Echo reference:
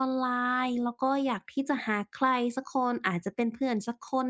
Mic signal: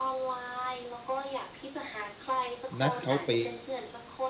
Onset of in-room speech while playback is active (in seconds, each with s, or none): 2.8 s